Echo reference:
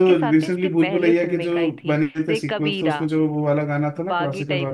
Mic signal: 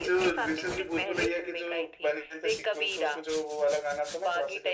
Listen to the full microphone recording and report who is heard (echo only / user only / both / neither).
echo only